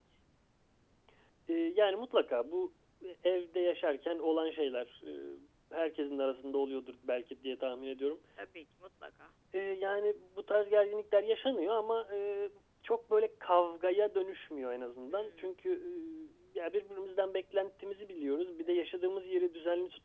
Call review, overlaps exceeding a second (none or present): none